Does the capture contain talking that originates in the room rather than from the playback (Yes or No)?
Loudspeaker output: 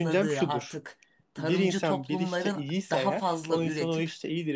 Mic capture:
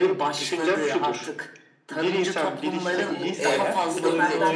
Yes